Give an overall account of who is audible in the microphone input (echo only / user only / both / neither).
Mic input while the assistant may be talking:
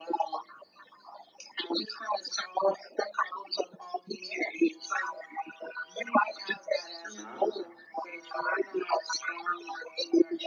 both